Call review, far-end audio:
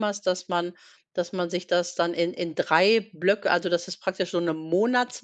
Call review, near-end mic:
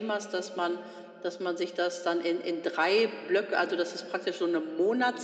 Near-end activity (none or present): none